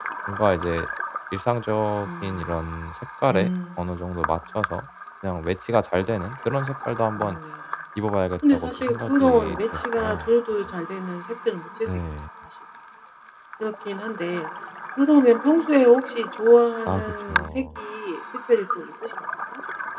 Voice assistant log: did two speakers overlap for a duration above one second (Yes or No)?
Yes